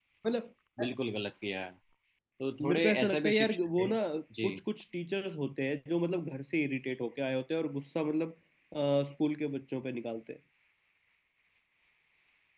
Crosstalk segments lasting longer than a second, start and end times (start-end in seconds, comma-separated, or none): 2.7-3.9